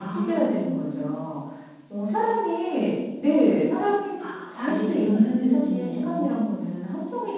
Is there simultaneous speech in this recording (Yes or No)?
Yes